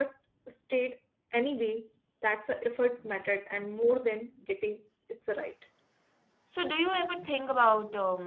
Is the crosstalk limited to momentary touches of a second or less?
Yes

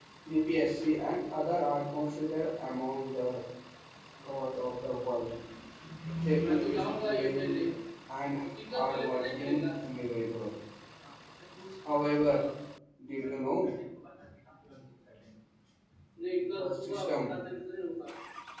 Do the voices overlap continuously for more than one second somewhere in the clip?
Yes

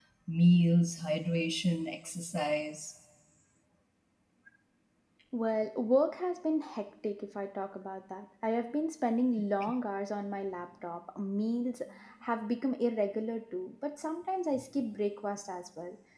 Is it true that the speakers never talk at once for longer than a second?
Yes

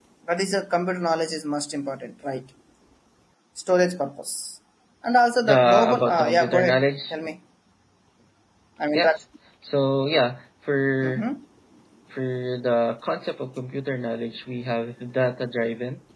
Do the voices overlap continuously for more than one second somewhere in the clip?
Yes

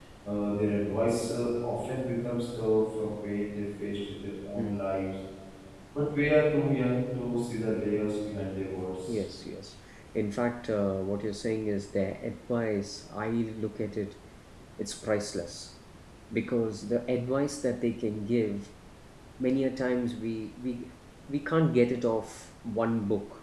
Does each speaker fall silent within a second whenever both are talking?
Yes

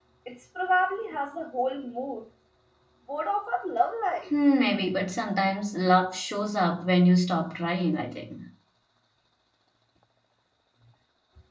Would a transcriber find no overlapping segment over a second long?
Yes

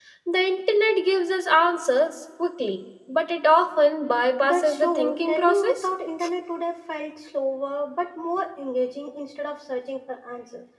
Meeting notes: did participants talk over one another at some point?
Yes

